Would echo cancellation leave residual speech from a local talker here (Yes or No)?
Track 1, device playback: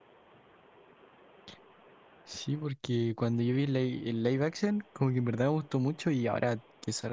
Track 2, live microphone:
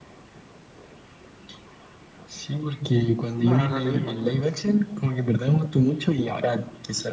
Yes